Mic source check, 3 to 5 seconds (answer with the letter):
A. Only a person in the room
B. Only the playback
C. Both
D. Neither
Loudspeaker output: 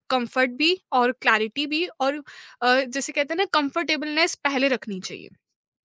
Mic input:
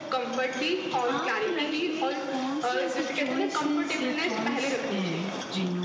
C